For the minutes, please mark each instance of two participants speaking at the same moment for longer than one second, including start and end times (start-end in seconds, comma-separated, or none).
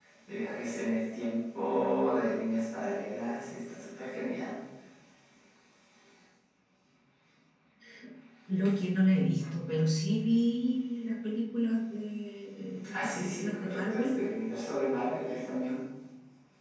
12.9-14.2